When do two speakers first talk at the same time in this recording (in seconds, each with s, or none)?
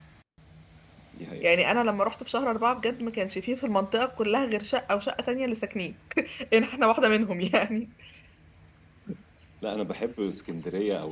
none